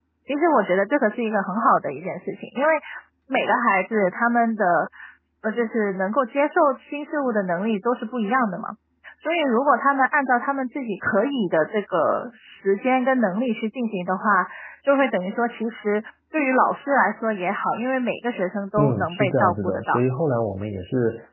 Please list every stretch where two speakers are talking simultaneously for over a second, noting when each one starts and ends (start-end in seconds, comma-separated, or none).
18.8-20.0